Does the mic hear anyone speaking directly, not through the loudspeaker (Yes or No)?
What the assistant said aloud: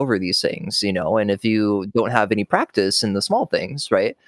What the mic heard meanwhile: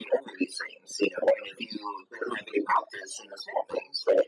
No